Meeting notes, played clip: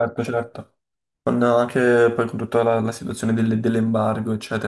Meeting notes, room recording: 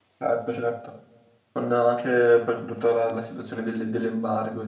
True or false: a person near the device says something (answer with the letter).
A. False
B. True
A